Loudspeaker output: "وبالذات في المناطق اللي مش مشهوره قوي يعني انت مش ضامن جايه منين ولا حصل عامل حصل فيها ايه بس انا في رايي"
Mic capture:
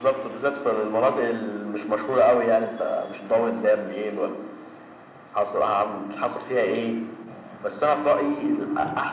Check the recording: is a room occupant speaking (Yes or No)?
No